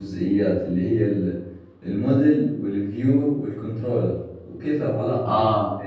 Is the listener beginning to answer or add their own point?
No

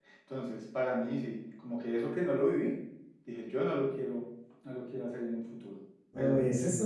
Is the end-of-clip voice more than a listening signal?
Yes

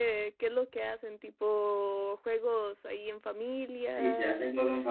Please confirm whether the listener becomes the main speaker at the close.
Yes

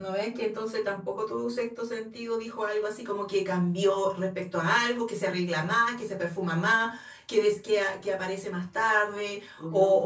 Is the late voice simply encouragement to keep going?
Yes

